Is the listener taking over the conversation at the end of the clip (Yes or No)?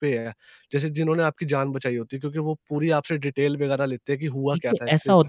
Yes